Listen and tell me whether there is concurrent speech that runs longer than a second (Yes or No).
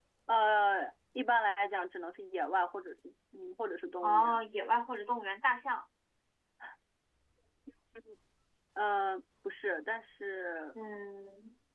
No